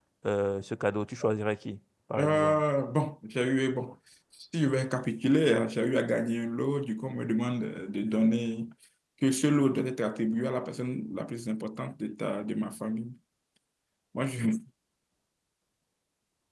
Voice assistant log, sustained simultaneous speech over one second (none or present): none